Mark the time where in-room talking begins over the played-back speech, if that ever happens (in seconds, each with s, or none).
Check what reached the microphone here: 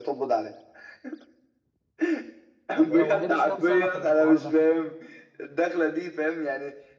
2.7 s